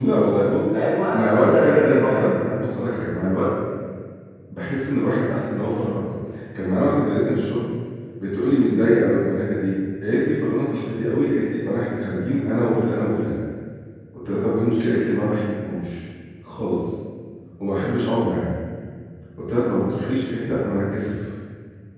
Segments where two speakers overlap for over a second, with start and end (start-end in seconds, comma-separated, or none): 1.1-2.4